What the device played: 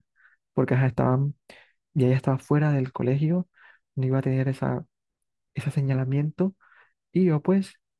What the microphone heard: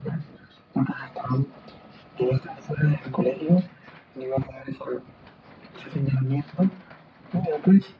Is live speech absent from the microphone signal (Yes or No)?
Yes